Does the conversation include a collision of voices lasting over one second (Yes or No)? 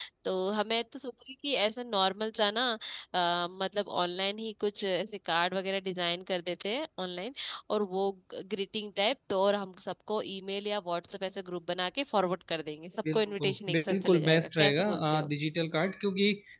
Yes